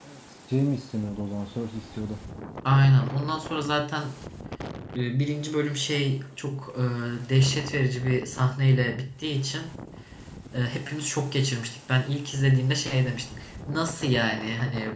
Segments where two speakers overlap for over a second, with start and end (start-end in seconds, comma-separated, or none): none